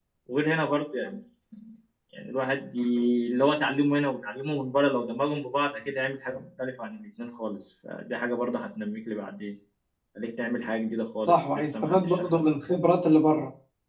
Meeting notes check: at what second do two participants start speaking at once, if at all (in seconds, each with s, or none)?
11.3 s